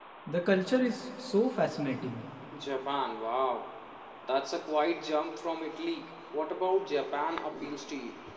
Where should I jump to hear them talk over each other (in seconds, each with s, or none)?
none